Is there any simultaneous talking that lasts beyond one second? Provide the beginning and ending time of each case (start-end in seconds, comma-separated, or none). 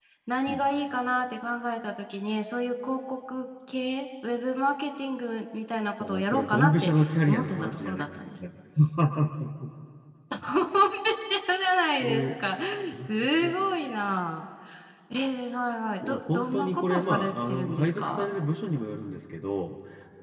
6.0-8.0, 16.1-18.3